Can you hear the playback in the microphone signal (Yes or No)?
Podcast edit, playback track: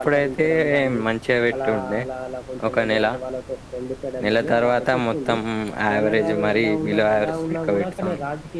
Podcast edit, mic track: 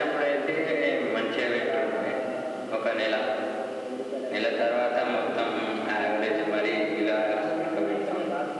Yes